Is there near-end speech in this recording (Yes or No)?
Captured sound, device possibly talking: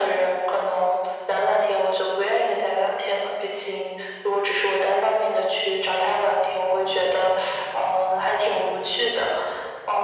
No